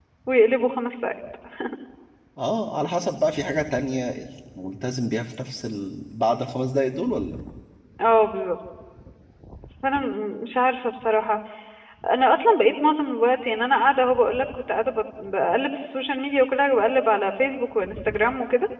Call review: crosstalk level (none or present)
none